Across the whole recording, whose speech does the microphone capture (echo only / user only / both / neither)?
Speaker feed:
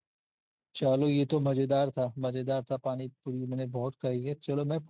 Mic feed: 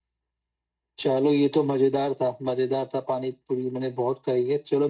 echo only